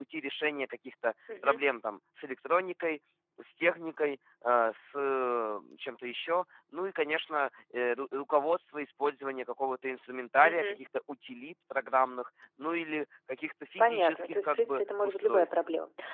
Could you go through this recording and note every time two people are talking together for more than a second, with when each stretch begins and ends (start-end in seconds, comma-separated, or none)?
13.8-15.5